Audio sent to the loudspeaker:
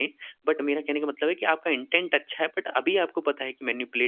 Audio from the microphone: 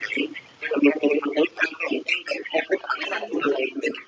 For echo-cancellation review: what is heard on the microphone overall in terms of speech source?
both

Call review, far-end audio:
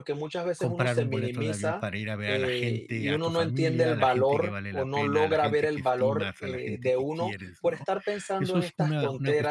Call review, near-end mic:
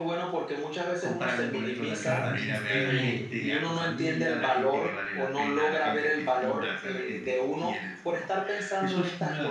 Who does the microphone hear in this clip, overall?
both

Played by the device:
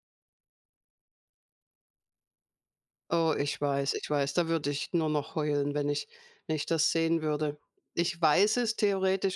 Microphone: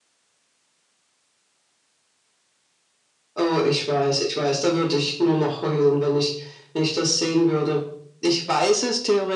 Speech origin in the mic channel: echo only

